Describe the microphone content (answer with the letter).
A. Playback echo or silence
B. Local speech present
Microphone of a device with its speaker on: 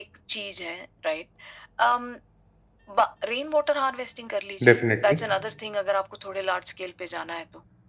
B